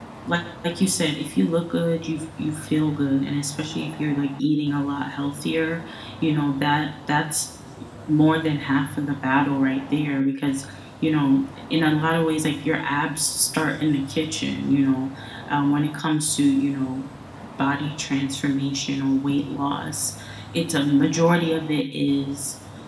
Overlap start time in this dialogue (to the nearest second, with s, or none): none